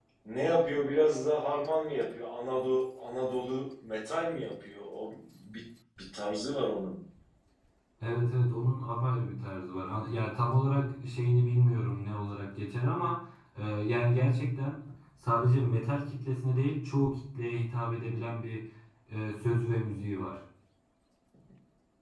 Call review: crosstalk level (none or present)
none